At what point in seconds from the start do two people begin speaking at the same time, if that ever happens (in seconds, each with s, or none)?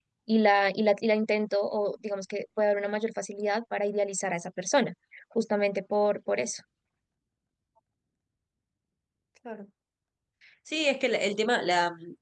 none